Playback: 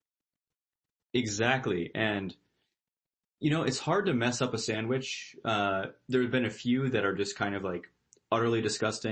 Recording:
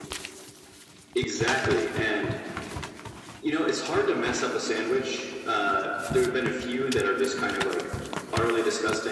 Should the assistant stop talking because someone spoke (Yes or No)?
No